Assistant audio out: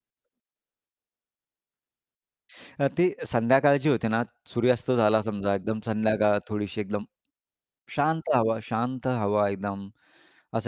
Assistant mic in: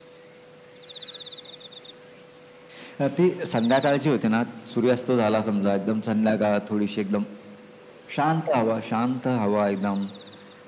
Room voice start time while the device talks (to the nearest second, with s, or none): none